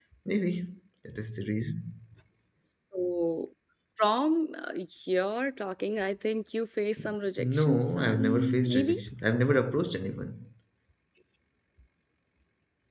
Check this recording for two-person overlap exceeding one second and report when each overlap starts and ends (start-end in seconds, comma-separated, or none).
7.4-9.0